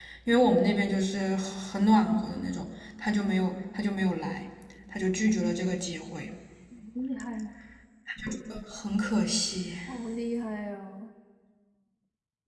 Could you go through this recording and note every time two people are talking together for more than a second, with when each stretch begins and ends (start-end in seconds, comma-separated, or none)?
none